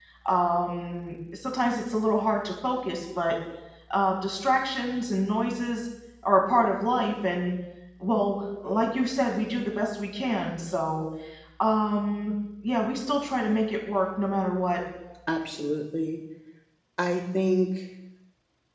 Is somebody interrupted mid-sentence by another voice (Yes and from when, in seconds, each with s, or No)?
No